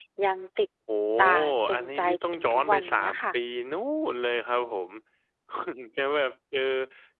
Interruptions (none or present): present